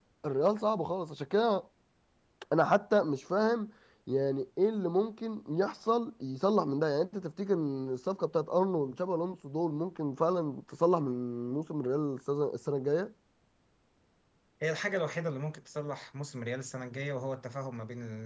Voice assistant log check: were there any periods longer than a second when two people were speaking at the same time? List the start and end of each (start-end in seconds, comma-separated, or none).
none